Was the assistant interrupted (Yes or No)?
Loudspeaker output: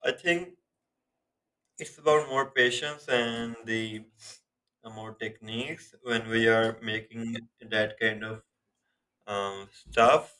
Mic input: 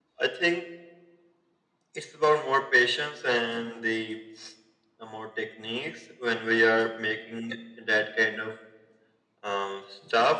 No